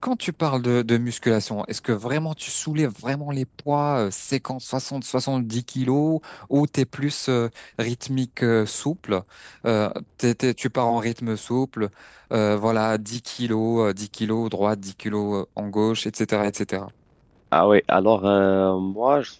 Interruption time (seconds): none

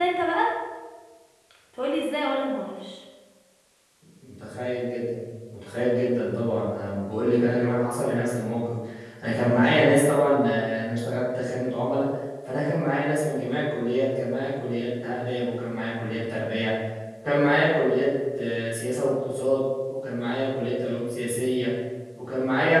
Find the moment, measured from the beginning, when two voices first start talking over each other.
none

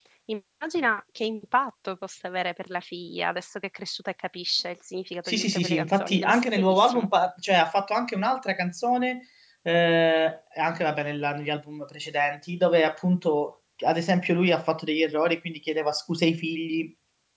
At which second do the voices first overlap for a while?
5.2 s

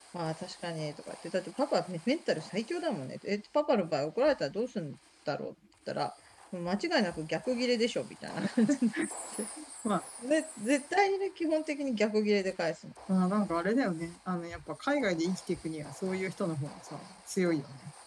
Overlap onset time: none

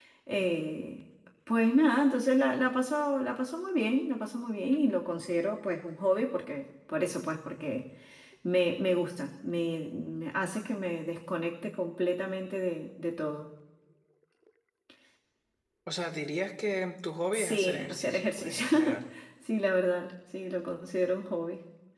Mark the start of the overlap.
17.3 s

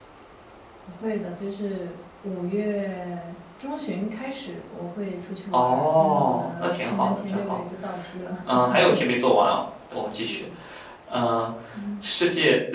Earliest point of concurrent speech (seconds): 5.5 s

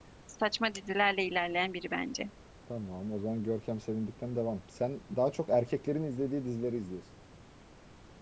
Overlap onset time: none

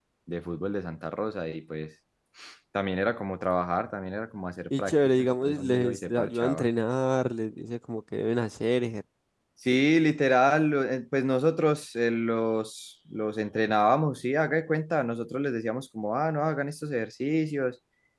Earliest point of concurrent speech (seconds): 4.7 s

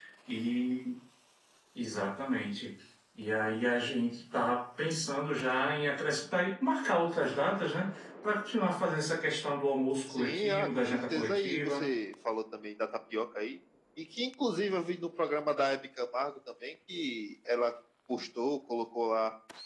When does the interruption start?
10.1 s

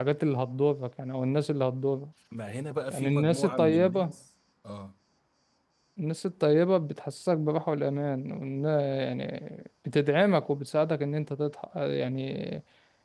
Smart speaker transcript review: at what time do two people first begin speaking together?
2.9 s

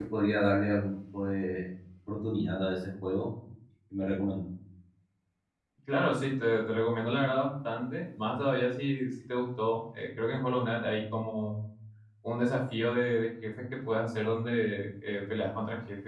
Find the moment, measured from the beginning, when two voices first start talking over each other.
none

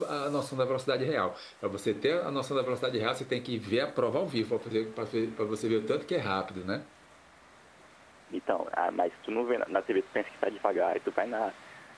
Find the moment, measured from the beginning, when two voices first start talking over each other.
none

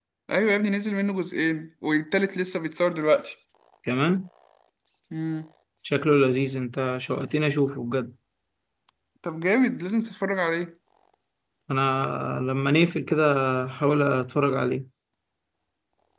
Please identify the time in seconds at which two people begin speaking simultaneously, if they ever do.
none

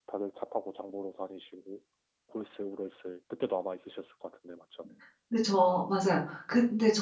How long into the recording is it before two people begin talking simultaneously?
none

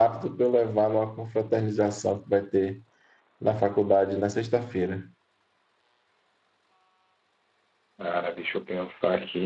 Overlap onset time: none

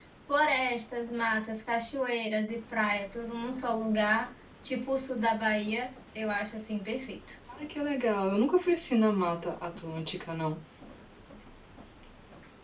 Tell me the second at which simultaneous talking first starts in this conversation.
none

